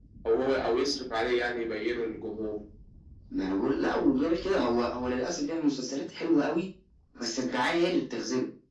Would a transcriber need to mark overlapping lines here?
No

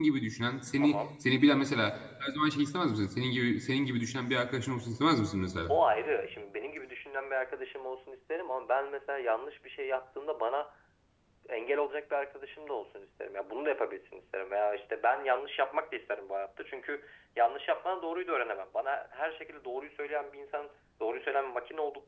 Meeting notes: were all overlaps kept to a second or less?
Yes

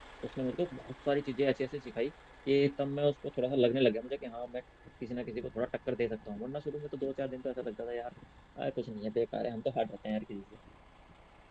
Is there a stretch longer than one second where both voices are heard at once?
No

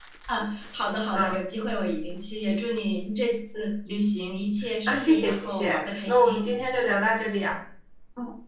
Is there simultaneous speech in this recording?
Yes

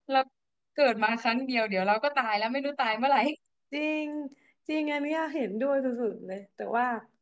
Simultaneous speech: No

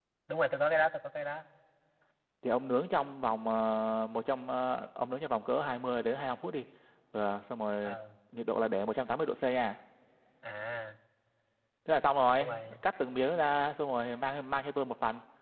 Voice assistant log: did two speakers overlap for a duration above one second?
No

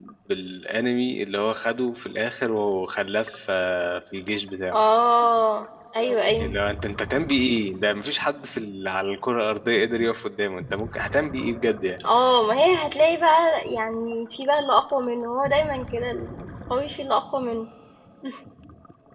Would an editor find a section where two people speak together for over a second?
No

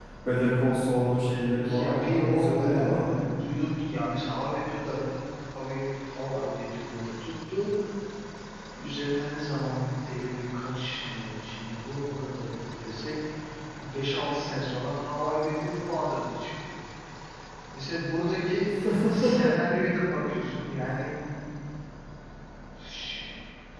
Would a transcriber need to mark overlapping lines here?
Yes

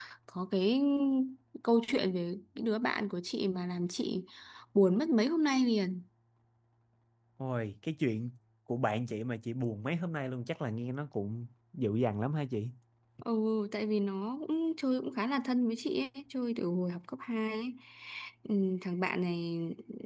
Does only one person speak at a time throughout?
Yes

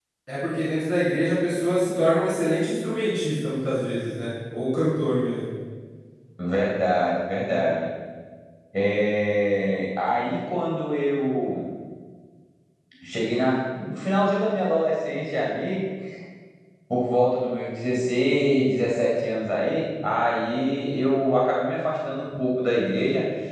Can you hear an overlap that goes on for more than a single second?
No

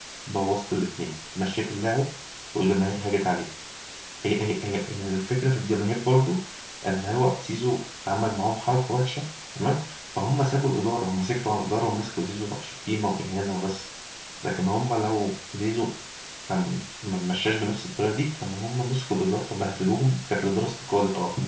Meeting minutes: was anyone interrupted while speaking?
No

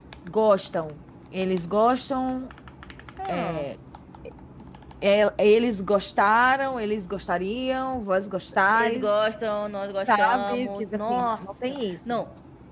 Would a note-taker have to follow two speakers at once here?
Yes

